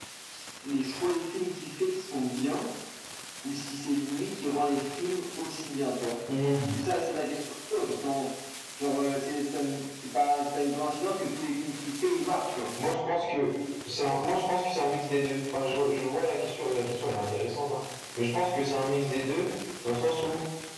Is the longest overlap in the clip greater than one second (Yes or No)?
No